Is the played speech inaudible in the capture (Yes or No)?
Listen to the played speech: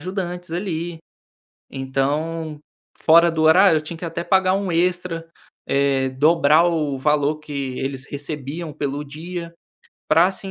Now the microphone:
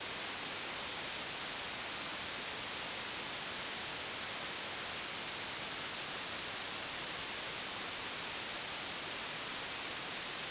Yes